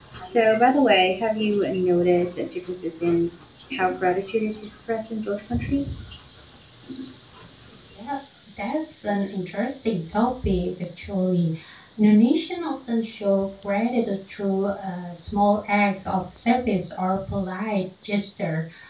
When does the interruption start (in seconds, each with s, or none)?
none